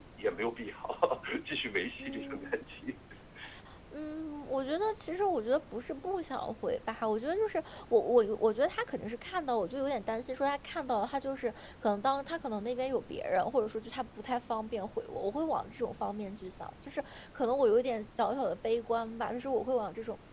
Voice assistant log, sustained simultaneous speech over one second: none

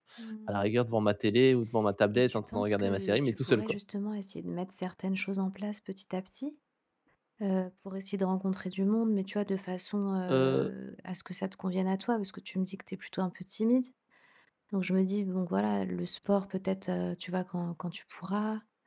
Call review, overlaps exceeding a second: present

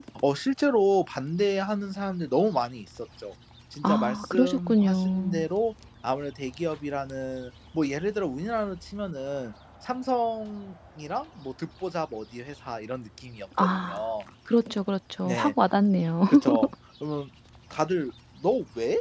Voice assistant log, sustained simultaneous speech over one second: present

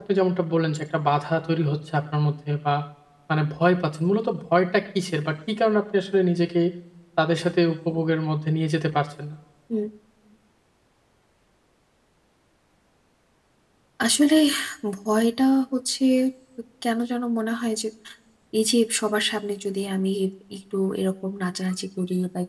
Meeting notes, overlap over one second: none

